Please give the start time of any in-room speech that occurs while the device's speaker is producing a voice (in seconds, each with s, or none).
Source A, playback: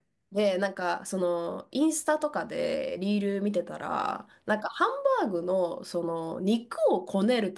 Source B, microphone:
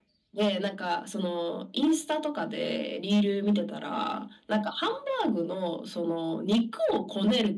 none